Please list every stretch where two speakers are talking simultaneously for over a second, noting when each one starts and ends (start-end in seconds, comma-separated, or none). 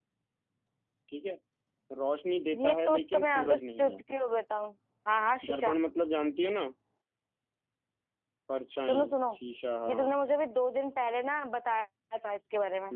2.6-4.0